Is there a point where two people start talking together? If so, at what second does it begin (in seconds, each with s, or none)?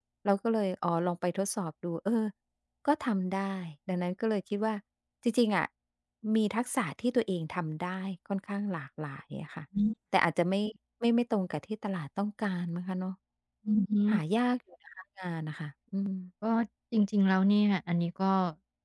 none